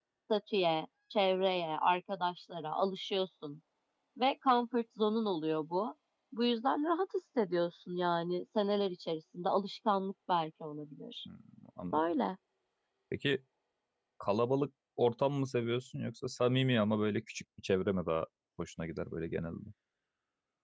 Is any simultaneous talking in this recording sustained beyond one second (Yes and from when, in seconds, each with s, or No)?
No